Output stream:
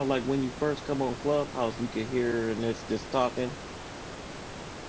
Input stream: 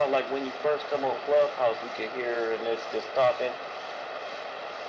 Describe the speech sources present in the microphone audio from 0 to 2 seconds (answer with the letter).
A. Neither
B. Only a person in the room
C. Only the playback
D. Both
C